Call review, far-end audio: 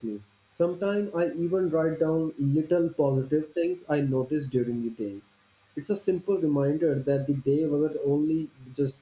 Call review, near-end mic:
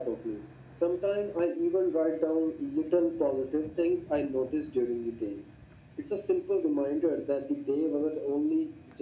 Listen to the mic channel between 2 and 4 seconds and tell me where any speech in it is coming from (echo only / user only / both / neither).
echo only